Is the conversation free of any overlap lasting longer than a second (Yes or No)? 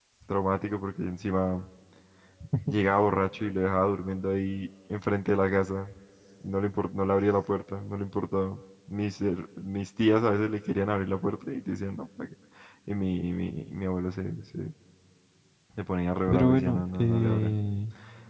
No